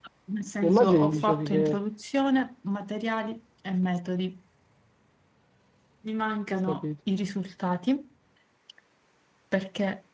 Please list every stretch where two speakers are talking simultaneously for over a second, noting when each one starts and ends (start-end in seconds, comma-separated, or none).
0.6-1.8